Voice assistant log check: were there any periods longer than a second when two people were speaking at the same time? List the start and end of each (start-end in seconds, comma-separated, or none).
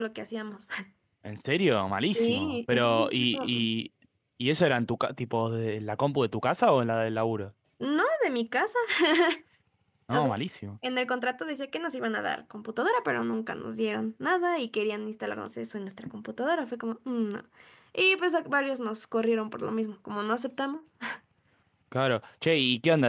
2.1-3.7